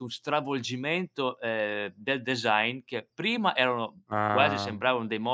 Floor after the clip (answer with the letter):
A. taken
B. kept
B